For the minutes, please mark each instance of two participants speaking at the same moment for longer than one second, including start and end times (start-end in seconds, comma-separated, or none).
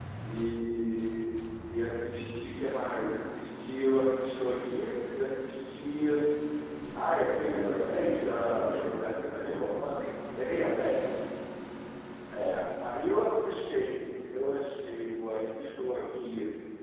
7.4-8.9